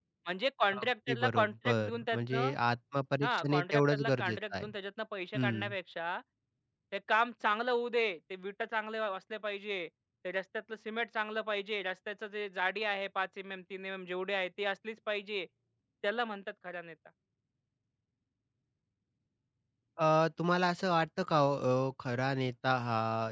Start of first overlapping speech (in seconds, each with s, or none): 0.7 s